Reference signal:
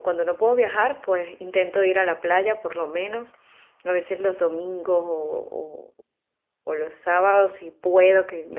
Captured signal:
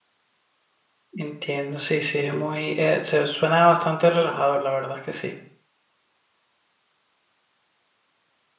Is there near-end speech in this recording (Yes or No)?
Yes